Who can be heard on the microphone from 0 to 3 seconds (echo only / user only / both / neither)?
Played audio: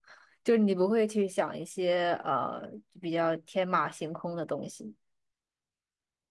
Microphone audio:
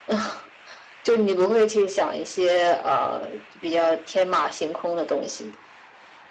echo only